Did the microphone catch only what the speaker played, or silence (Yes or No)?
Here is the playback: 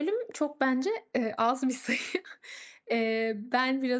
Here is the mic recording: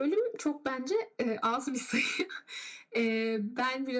Yes